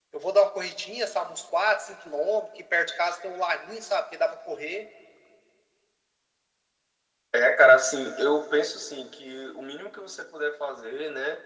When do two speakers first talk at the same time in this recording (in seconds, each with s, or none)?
none